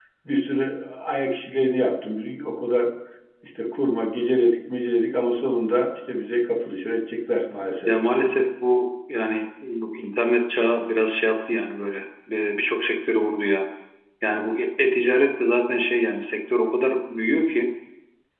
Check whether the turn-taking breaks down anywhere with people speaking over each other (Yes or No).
No